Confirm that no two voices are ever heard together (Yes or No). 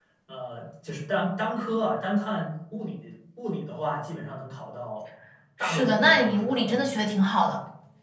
No